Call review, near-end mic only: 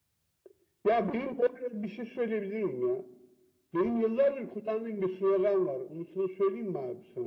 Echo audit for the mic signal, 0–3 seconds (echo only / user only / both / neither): echo only